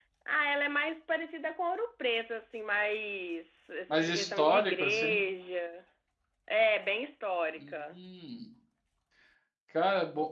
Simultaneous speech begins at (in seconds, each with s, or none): 3.9 s